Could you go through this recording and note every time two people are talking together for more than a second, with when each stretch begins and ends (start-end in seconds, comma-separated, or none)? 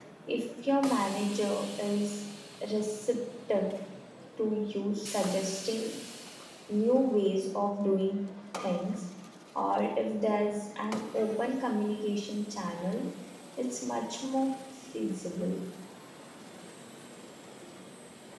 none